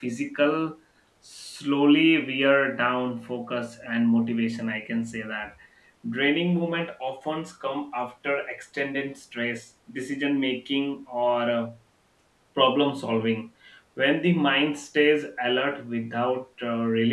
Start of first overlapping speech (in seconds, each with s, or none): none